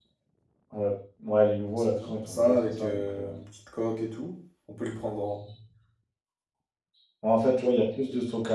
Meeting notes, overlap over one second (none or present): present